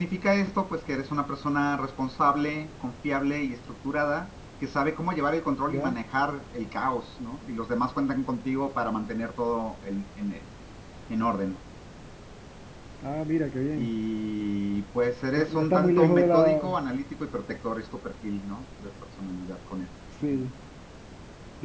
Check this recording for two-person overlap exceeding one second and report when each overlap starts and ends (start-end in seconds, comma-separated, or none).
15.4-16.6